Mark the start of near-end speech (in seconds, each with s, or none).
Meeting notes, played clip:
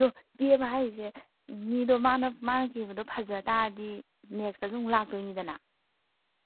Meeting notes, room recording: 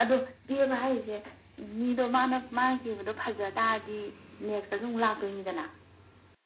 none